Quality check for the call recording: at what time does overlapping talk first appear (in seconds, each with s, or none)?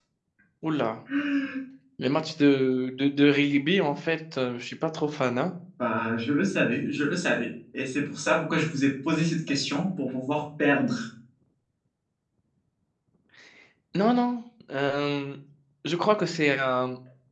none